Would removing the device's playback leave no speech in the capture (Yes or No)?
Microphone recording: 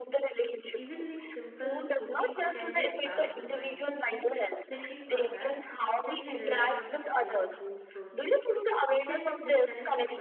No